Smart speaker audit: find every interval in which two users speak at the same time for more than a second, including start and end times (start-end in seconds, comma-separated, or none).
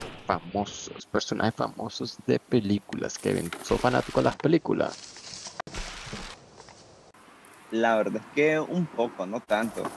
none